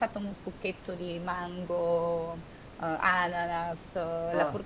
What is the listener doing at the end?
listening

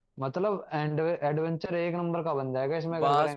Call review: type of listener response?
taking over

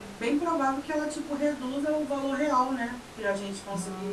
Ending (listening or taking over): listening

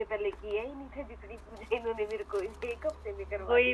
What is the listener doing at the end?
taking over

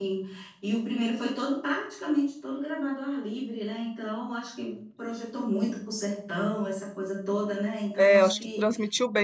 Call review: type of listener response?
taking over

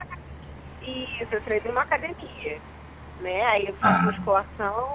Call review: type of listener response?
listening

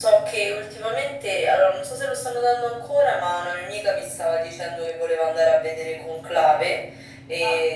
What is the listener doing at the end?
listening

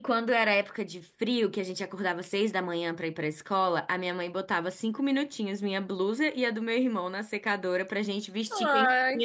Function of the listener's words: taking over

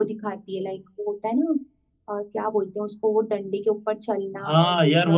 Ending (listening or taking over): taking over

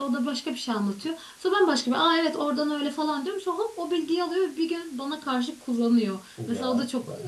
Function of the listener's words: listening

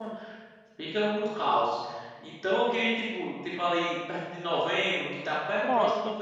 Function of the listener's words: listening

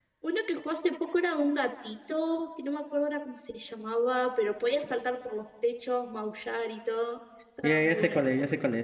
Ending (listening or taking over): taking over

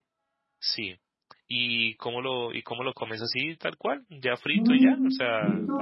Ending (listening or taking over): taking over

